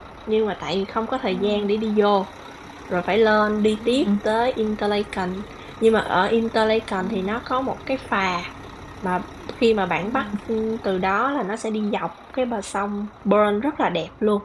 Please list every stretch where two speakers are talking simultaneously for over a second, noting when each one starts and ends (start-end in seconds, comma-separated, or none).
none